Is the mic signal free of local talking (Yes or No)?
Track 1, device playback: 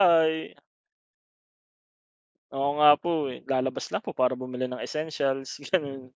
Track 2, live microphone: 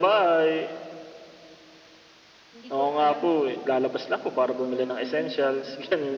No